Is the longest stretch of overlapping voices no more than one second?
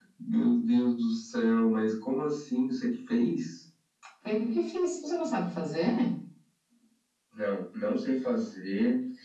Yes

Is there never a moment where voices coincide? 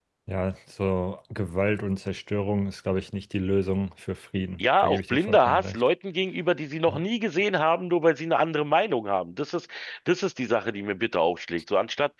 No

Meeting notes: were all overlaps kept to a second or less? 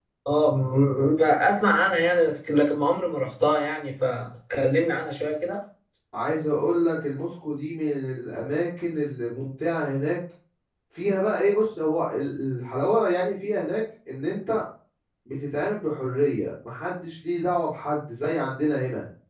Yes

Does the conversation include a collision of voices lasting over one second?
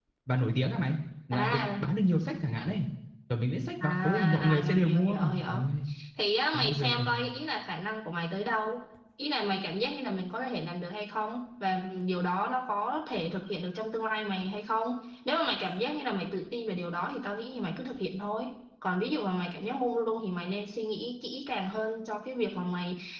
Yes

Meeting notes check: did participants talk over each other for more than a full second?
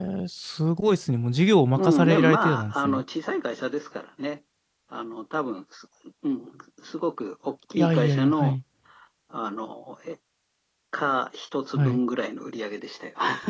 Yes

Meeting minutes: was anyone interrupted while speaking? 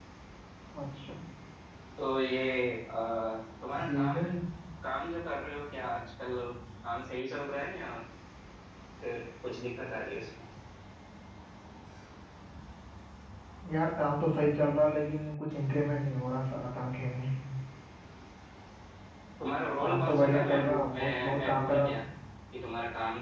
Yes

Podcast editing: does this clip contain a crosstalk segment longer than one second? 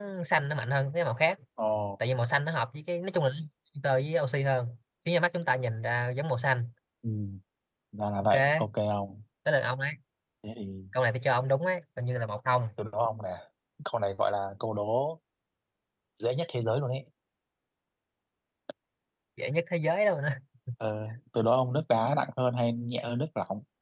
No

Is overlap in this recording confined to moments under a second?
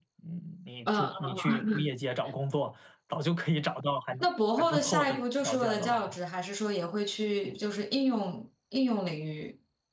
No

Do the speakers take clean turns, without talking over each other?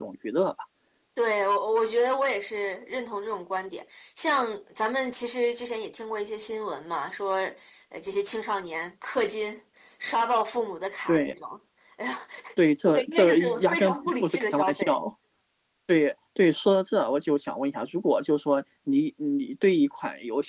No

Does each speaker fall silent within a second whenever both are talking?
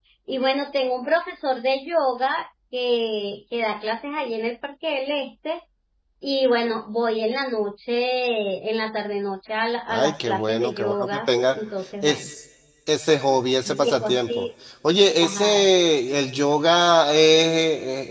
No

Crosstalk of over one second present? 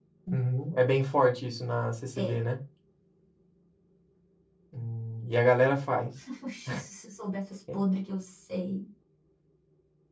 No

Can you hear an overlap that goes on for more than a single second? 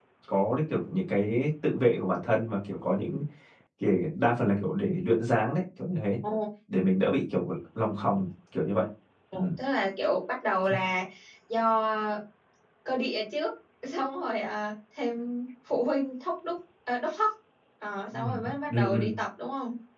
No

